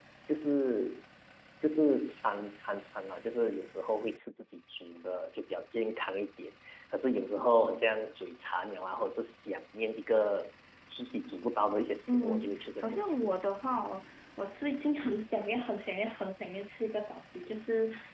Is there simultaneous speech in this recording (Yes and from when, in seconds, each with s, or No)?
Yes, from 12.1 s